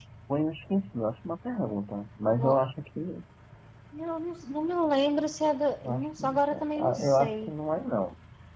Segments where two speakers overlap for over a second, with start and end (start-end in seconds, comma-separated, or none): 5.8-7.5